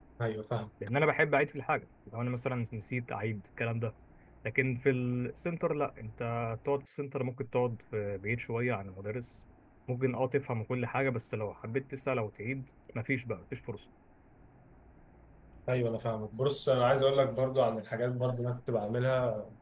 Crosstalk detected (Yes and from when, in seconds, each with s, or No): No